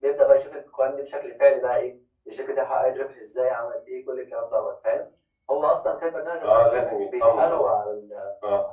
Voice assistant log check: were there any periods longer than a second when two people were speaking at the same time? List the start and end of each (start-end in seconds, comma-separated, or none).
6.4-7.7